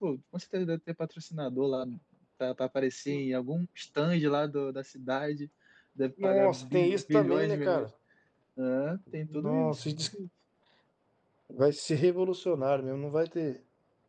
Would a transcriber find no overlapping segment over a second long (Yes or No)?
No